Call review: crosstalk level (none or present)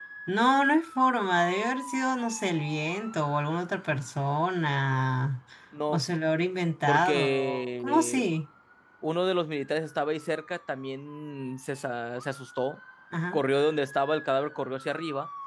present